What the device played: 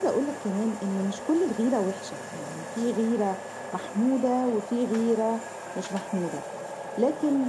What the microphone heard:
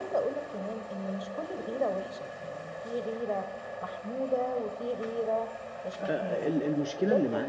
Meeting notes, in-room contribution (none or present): present